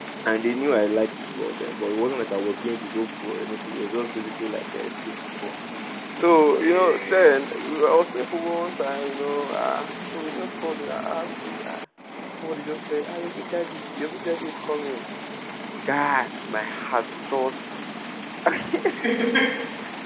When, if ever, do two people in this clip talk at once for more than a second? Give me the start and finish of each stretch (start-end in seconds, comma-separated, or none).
6.2-7.4